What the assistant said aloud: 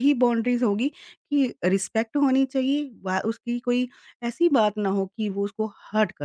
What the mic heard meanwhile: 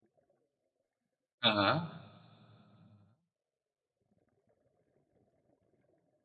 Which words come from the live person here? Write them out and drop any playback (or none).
हाँ, हाँ।